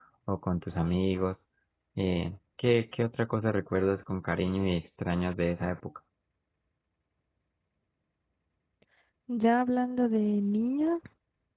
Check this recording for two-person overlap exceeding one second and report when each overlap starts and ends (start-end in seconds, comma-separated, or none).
none